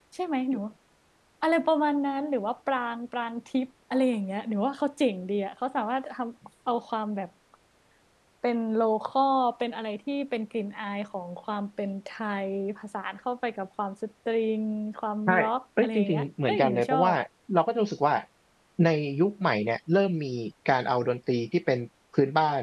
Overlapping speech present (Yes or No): Yes